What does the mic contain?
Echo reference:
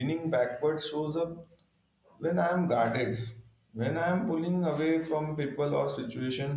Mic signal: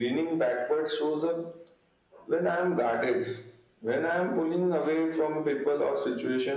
echo only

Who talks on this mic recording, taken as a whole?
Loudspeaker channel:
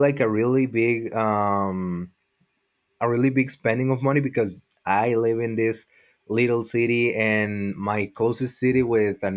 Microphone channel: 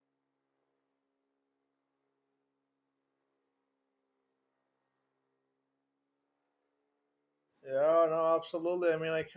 user only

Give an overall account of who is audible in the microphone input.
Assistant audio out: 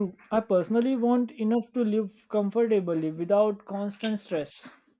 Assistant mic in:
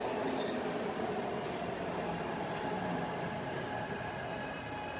neither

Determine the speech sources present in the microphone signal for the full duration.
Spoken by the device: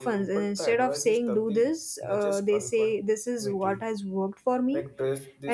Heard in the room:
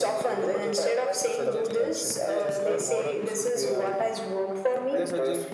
both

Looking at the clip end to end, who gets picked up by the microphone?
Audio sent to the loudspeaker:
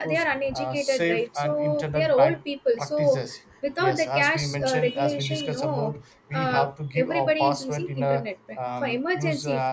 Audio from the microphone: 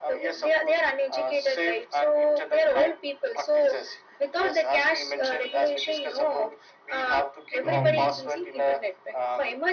both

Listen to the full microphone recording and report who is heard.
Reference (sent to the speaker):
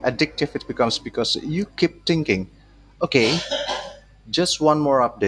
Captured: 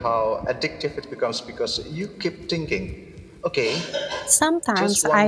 both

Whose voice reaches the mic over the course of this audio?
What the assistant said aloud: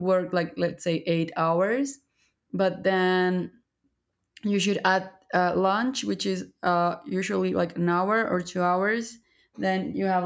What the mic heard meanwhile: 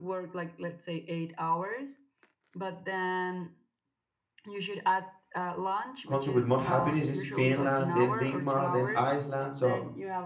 both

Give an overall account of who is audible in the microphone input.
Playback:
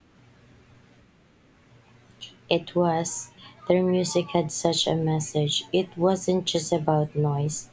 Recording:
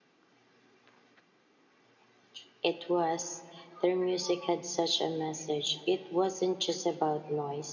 echo only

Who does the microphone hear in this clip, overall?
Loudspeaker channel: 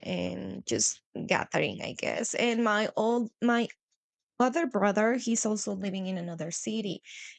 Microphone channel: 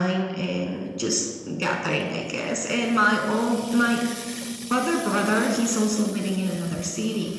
echo only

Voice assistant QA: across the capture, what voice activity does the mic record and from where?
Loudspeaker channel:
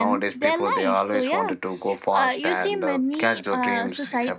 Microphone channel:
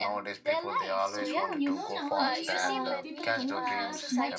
both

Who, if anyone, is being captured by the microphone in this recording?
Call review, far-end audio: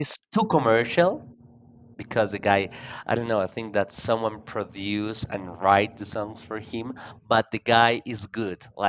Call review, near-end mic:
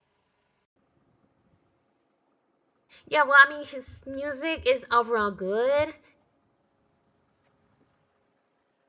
user only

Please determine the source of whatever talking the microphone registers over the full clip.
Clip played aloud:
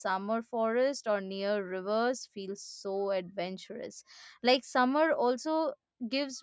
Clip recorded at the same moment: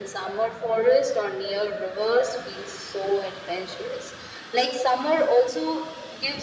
echo only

